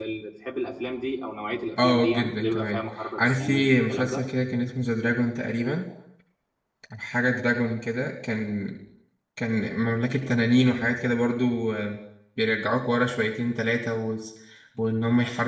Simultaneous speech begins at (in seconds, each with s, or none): 1.8 s